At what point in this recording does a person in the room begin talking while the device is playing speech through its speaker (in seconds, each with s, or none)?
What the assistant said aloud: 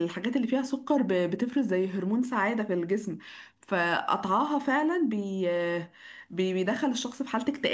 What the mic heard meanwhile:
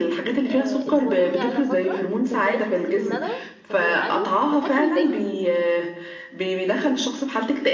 0.5 s